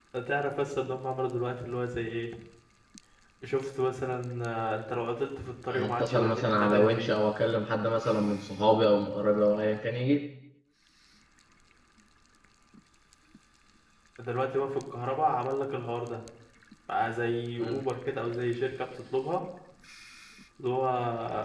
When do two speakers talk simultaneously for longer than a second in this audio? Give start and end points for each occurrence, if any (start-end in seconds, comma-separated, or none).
5.7-7.1